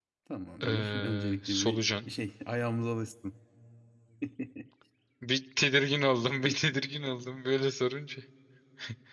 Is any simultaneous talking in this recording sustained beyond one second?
Yes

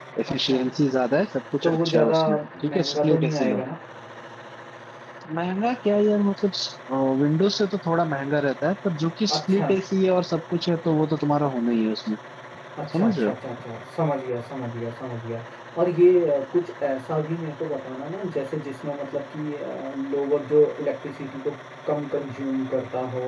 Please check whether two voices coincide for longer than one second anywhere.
Yes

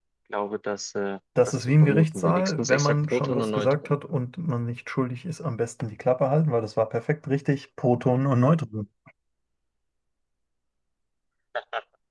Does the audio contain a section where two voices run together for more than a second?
Yes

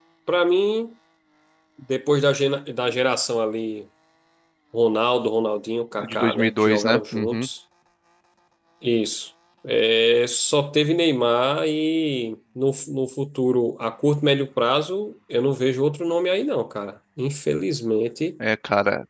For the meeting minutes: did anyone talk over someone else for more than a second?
Yes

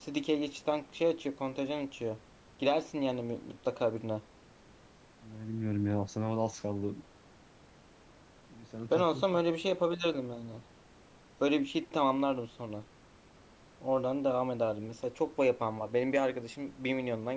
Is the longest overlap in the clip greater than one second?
No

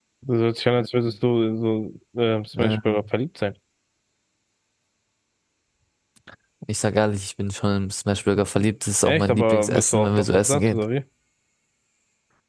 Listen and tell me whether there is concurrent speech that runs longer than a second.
Yes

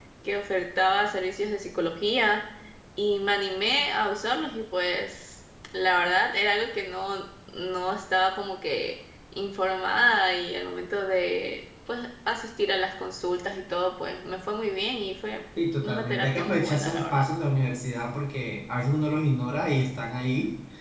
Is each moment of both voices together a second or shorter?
No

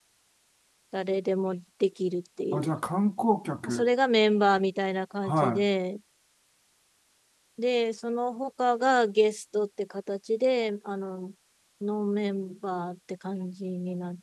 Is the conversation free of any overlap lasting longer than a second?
Yes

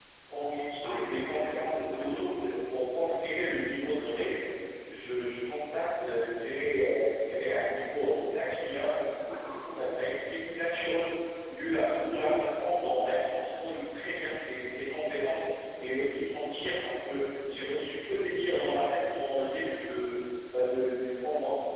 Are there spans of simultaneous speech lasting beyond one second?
Yes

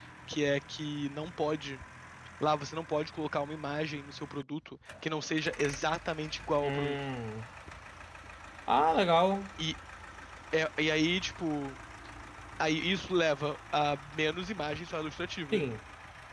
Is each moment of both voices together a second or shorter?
Yes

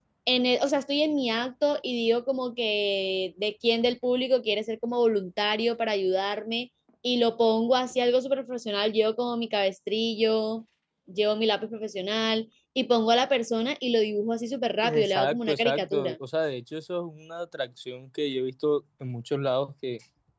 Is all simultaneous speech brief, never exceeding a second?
No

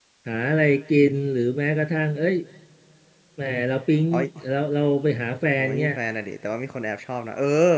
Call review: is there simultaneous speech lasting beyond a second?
No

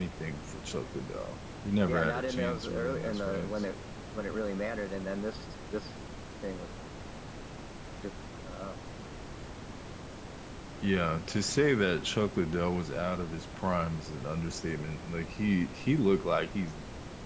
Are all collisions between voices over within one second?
No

